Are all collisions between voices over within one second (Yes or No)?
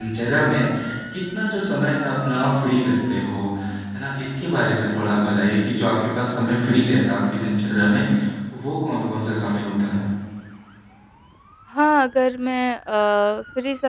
Yes